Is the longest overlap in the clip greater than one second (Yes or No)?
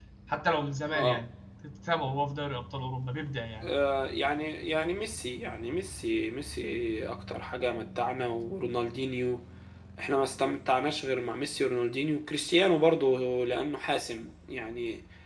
No